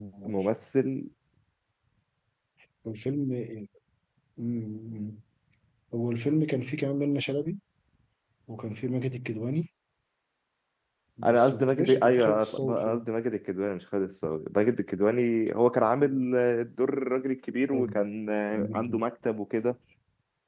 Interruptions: present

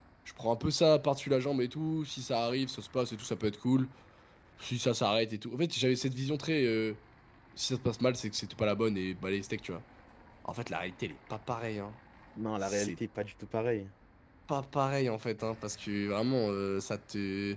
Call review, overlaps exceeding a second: none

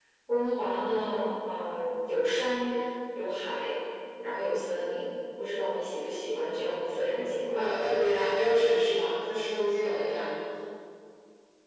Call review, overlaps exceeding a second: none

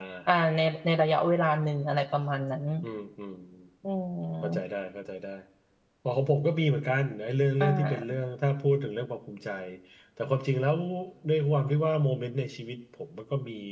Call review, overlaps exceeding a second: none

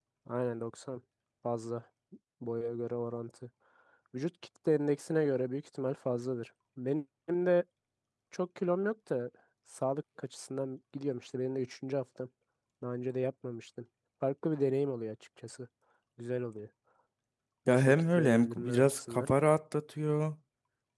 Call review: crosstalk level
present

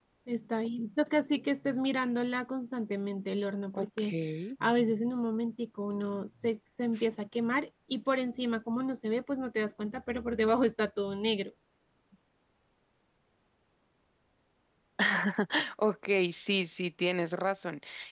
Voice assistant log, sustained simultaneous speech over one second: none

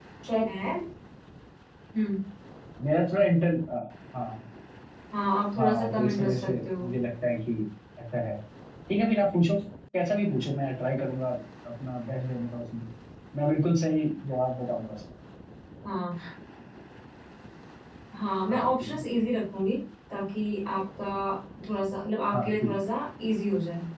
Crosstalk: present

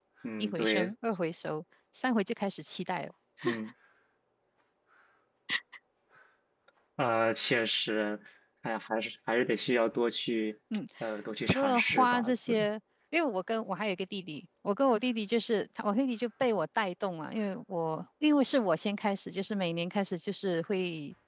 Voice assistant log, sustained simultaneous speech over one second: present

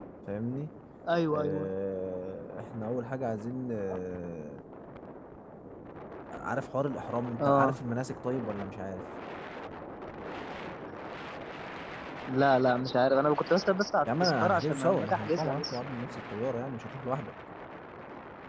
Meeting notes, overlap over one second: present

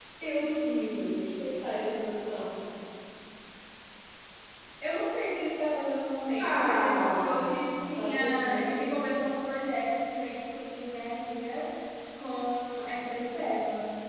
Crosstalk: present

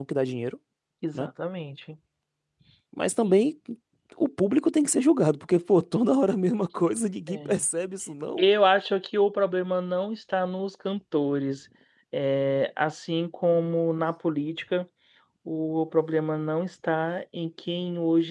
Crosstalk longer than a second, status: none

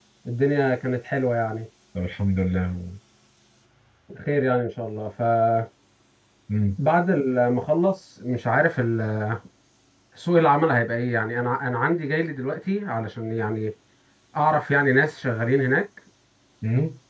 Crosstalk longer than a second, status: none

